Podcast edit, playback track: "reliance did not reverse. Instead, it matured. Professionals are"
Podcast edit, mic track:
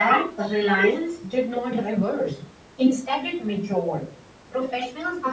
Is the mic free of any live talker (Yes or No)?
Yes